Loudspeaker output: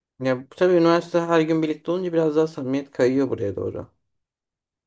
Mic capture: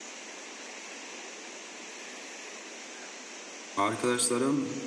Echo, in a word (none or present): none